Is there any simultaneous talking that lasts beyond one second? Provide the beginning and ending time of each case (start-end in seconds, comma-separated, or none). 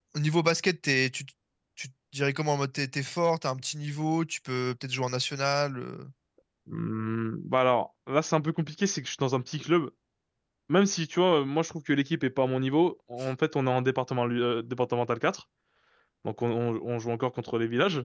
none